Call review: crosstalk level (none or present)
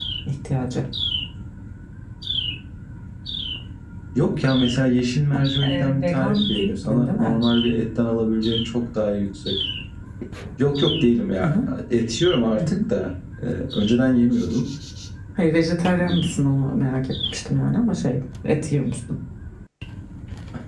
present